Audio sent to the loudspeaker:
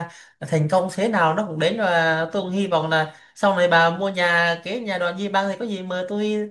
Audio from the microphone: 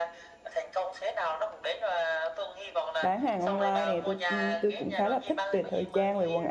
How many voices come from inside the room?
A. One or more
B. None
A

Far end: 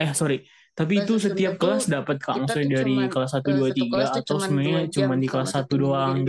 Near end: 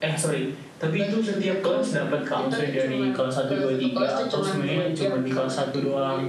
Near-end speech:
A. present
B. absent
B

